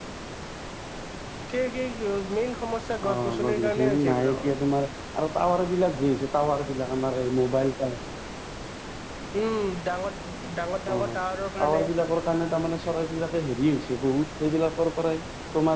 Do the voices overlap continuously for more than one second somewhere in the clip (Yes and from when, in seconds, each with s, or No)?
Yes, from 3.1 s